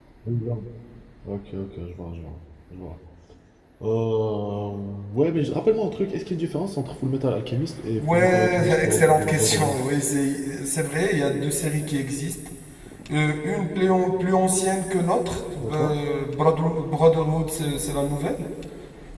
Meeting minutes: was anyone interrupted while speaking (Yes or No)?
Yes